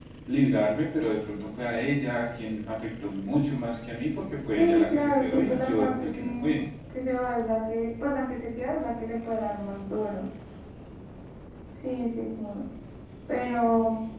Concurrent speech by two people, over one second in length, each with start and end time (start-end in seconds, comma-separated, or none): 4.6-6.6